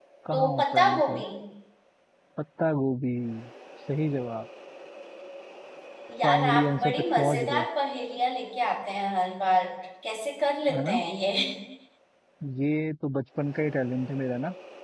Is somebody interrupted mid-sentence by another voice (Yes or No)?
Yes